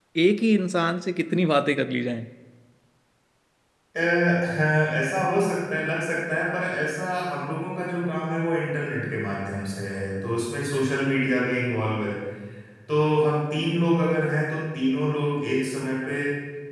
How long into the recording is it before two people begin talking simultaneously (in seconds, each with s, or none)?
none